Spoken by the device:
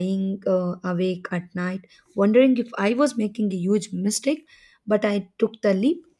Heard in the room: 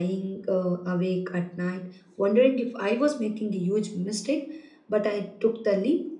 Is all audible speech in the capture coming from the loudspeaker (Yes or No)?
Yes